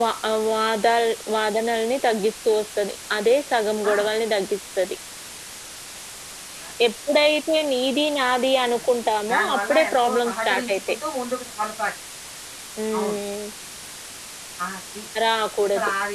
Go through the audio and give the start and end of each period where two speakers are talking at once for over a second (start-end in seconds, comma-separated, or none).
9.3-10.8